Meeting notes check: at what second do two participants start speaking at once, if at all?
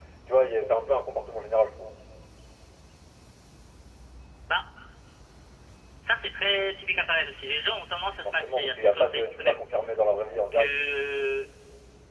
8.2 s

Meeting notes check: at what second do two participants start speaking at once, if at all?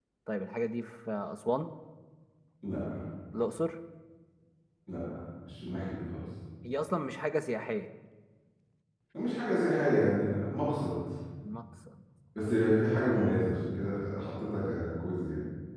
none

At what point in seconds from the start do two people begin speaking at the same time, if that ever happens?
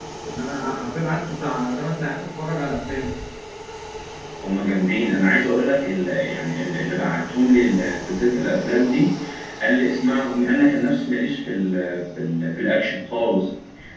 none

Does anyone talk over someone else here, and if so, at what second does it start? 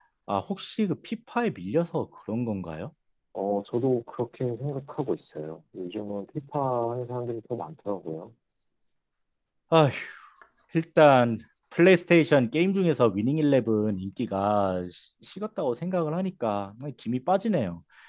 none

